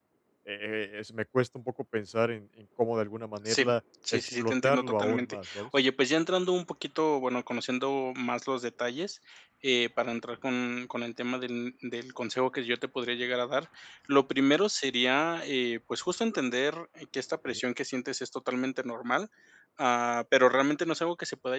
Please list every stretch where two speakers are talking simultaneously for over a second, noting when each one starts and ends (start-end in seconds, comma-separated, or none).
4.1-5.7